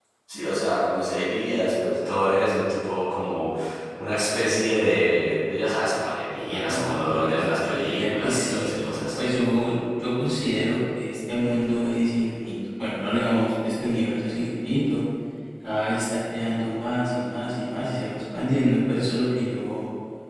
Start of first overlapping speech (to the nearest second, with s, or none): 7 s